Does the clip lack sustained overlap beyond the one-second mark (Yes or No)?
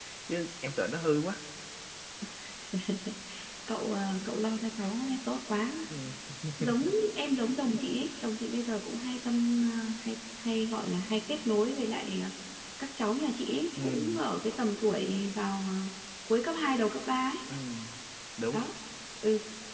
Yes